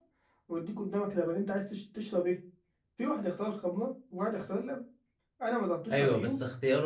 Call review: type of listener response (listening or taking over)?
taking over